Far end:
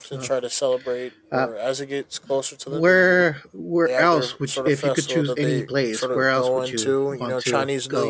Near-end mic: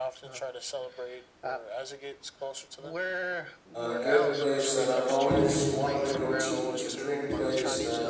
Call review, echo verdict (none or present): present